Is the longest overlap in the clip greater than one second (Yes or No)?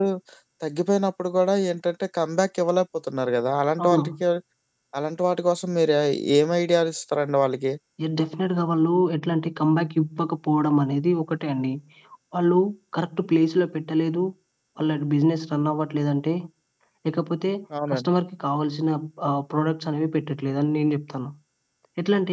No